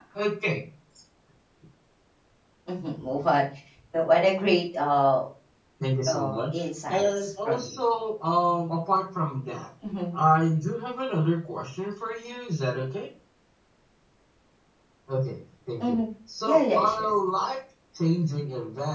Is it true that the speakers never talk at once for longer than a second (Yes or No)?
No